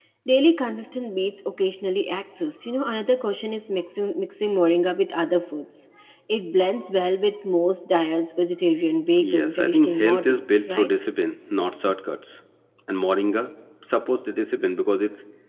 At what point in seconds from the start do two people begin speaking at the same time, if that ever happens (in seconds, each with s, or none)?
9.2 s